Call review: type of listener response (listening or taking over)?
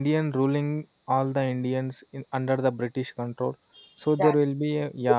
listening